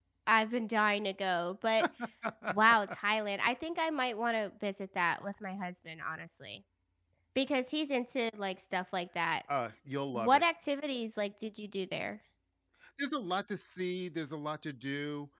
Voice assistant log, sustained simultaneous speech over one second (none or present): none